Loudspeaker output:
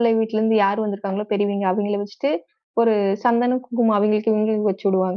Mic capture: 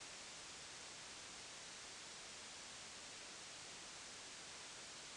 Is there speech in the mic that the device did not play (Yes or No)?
No